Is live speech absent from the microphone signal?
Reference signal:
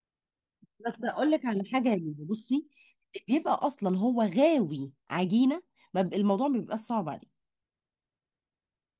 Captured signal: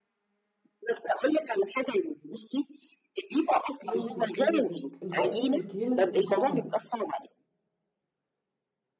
No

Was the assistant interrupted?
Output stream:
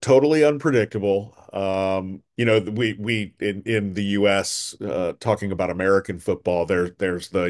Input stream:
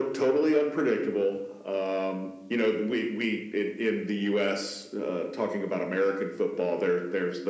No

